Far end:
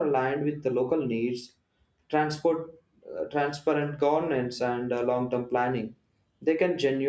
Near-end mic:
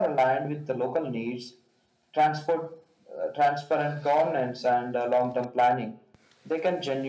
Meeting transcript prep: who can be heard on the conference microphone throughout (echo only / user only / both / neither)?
echo only